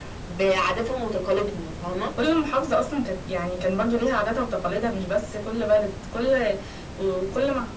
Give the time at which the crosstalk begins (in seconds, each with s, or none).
none